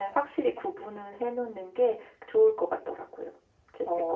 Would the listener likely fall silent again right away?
No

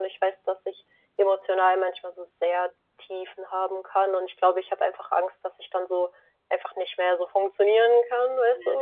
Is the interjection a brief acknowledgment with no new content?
No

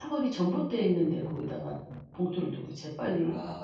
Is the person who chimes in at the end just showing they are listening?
Yes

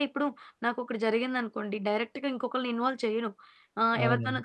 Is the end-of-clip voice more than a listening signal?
No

